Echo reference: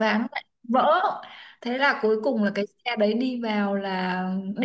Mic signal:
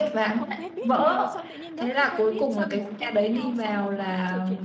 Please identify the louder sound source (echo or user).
echo